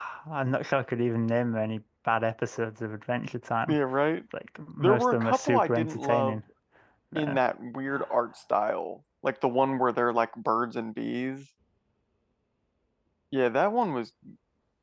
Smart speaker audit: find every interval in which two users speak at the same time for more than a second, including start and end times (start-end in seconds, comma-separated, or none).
4.8-6.4